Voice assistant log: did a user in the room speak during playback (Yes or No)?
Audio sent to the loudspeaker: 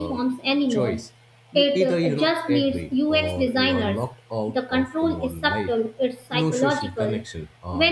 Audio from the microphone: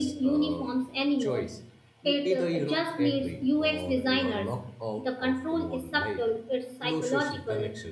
No